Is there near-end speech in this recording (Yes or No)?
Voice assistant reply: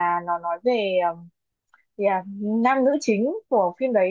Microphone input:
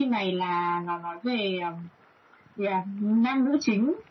No